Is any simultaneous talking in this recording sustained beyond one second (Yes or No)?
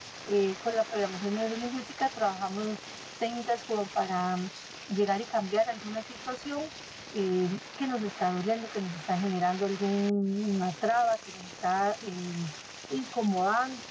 No